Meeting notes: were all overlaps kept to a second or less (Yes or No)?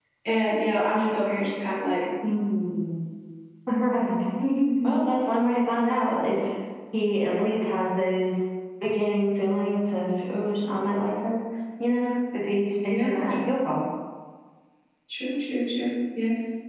Yes